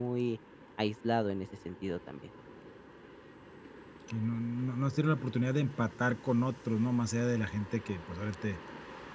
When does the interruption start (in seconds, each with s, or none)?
none